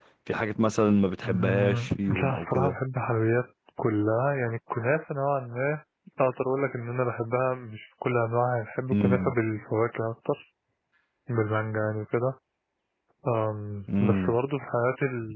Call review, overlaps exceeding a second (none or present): present